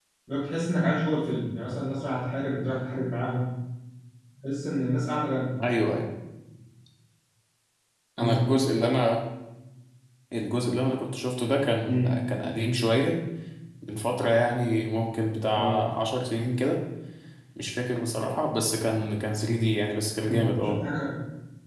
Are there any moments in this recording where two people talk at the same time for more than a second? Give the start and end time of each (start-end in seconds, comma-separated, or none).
none